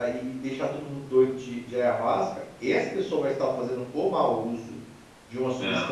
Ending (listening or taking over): listening